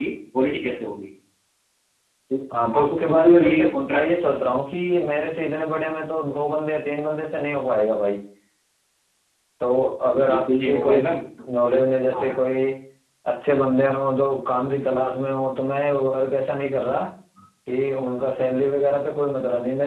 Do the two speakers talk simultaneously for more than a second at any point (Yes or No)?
Yes